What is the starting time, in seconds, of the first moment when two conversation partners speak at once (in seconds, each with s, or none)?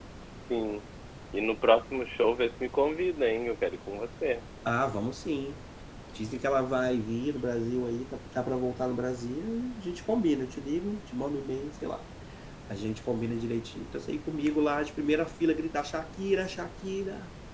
none